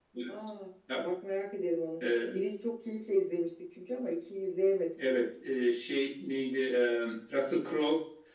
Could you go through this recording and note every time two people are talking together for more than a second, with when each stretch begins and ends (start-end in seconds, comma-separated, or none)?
none